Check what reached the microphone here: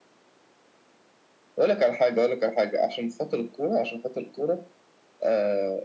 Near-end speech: none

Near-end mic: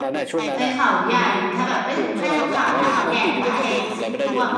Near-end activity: present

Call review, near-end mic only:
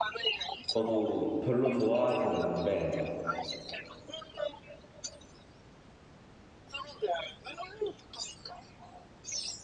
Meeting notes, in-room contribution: present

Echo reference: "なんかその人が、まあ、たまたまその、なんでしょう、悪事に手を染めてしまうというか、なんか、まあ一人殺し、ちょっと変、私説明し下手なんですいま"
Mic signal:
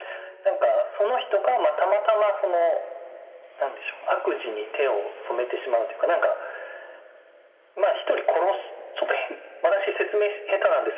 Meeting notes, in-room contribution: none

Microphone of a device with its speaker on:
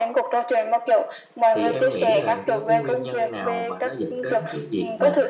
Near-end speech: present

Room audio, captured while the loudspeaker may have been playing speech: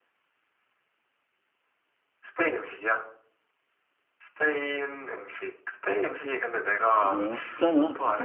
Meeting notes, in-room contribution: present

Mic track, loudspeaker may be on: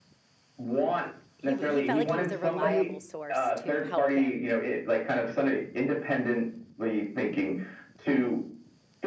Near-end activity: present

